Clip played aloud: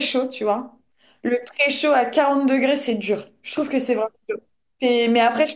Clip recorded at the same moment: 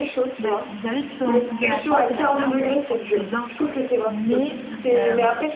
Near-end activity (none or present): present